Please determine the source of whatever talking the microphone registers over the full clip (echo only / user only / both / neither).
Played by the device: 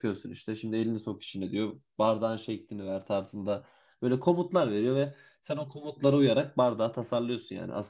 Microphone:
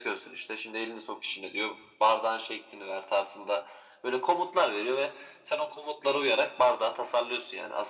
echo only